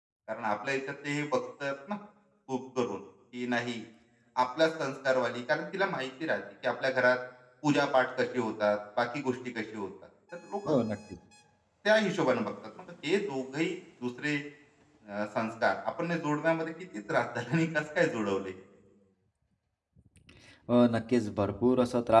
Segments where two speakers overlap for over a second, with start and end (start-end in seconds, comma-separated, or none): none